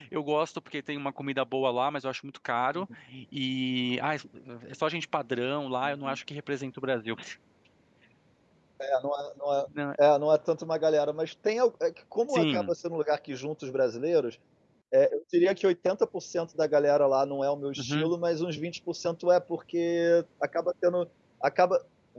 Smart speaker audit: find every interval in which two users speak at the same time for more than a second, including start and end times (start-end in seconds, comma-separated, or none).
none